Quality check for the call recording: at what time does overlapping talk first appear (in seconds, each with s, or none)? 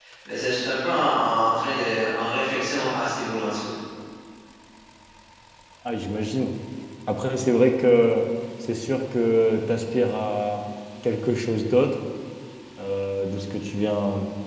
none